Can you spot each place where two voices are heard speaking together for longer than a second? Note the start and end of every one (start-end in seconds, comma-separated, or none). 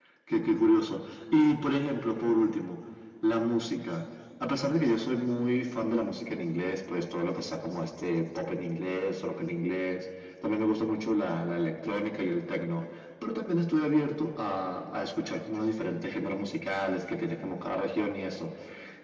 none